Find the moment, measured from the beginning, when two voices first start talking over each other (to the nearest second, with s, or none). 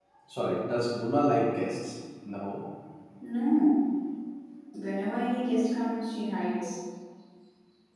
none